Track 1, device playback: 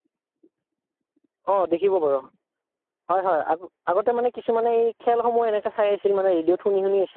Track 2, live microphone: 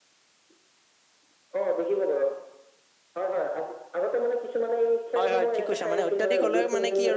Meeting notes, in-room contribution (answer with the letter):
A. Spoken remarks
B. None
A